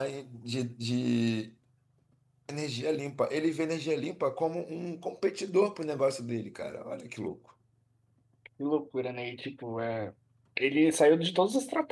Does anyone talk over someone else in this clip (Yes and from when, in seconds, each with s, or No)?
No